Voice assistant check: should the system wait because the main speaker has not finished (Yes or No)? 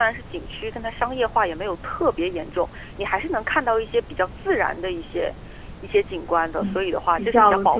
No